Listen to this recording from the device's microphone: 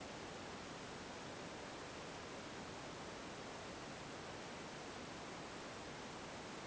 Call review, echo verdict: none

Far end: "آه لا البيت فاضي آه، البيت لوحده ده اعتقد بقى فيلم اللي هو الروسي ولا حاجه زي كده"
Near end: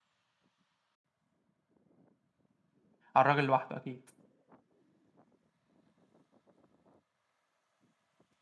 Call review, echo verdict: none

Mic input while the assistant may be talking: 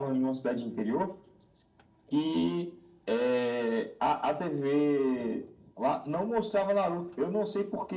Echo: present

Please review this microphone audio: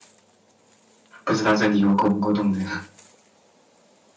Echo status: none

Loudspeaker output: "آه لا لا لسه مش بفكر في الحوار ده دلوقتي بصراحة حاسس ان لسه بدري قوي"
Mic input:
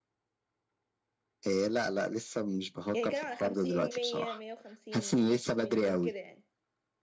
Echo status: present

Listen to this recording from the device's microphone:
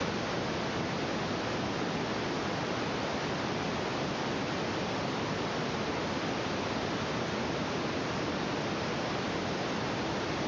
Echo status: none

